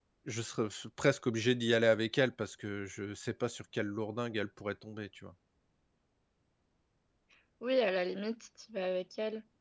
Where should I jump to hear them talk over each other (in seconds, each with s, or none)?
none